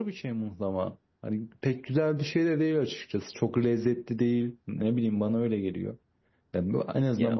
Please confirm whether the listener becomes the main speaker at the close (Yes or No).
No